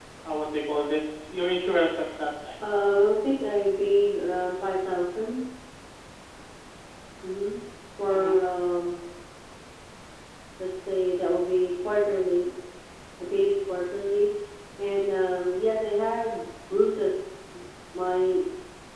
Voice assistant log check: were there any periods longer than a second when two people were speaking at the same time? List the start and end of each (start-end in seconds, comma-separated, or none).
none